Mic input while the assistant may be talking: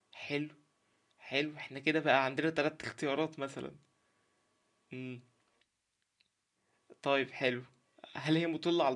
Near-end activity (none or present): present